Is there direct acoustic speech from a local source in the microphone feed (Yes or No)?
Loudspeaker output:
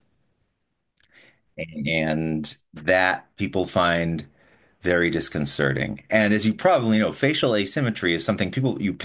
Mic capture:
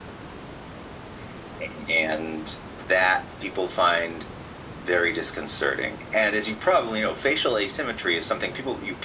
No